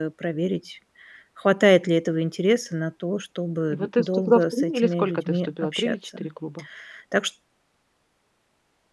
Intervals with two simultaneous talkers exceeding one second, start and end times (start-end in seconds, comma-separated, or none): 3.7-6.2